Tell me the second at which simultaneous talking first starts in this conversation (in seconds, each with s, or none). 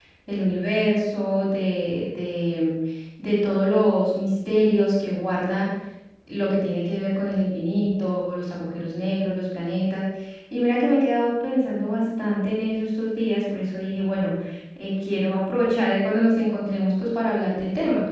none